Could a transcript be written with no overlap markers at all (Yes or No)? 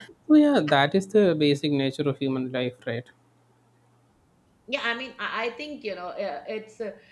Yes